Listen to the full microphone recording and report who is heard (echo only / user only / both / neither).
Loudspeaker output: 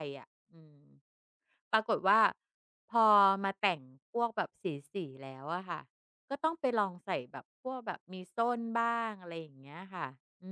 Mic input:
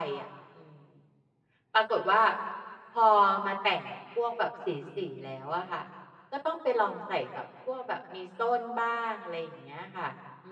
echo only